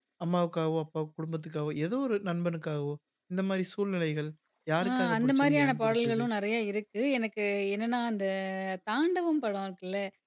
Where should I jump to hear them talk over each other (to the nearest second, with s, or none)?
5 s